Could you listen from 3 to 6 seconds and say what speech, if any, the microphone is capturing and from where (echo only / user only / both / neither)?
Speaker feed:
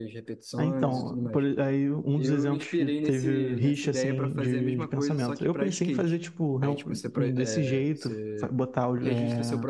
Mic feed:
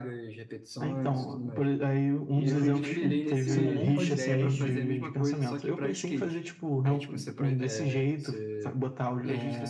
both